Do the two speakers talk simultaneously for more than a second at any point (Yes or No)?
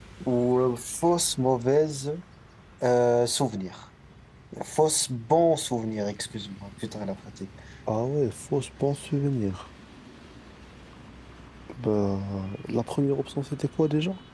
No